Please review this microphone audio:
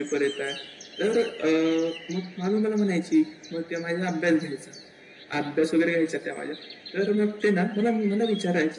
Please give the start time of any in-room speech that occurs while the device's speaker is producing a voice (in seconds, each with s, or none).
none